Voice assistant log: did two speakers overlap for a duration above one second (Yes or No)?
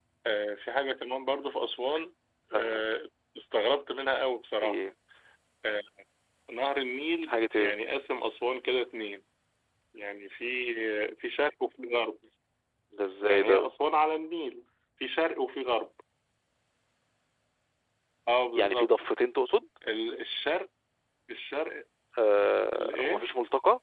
No